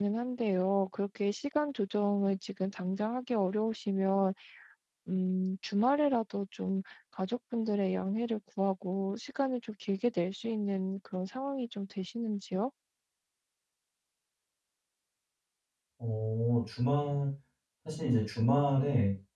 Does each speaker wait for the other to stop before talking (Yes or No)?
Yes